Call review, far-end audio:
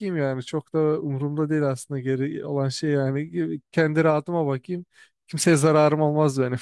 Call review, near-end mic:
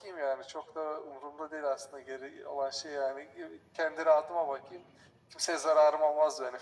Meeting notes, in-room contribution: none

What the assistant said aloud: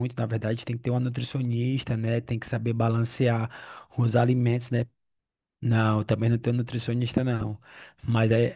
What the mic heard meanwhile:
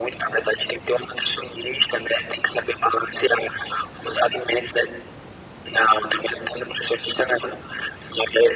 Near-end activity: none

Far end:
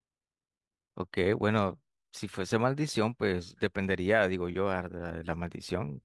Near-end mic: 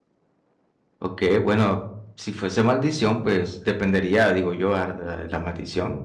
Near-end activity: none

